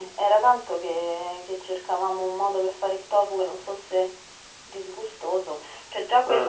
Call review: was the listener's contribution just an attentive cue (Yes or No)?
Yes